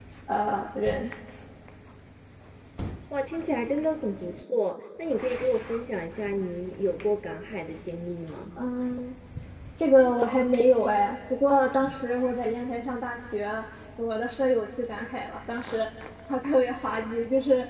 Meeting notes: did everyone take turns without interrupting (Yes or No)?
Yes